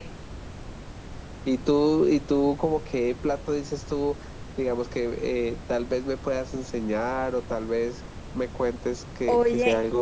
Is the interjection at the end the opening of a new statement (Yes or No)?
Yes